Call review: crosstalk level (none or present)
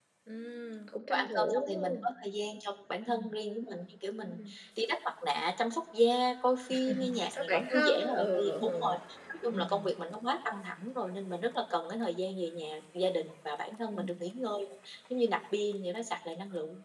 present